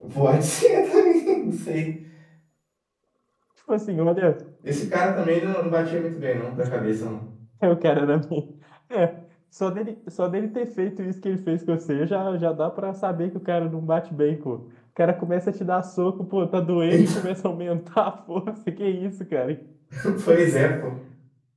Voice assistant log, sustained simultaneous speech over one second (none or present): none